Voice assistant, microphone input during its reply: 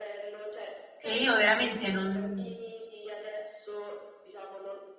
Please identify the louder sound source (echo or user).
user